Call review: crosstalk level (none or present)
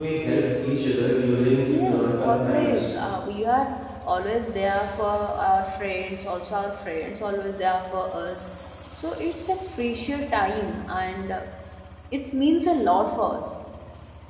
present